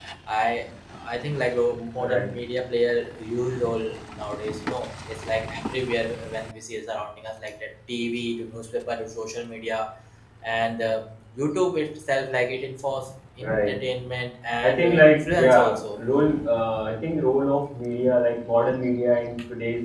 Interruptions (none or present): present